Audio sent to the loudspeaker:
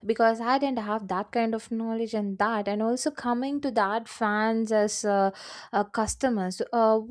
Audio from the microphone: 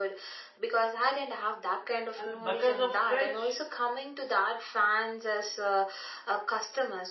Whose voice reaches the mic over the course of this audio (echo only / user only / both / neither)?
both